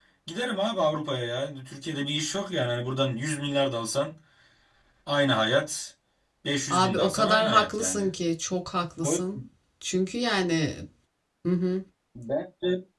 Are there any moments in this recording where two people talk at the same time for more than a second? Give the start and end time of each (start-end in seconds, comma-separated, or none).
6.7-8.1